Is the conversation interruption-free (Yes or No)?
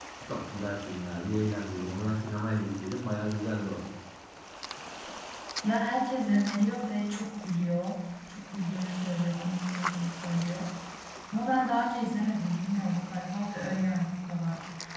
Yes